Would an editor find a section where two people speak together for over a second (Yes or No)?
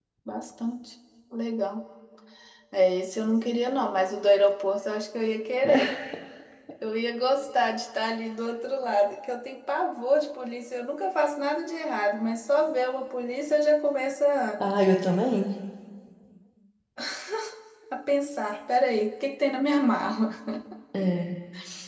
No